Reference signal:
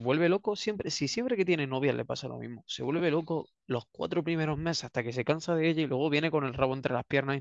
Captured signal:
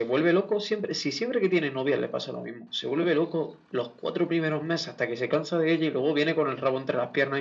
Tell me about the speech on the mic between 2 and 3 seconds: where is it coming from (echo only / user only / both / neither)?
echo only